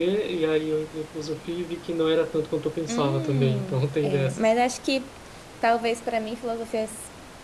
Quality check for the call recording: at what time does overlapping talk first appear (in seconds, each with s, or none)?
2.9 s